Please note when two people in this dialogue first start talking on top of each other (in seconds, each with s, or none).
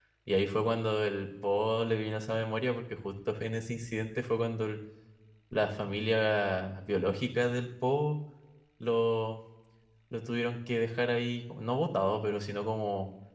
none